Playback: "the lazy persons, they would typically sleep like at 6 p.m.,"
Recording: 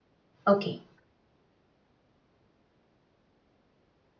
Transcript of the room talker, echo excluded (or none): Okay,